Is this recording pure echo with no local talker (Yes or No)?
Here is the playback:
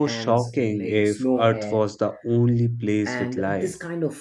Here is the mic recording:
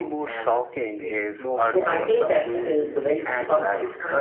No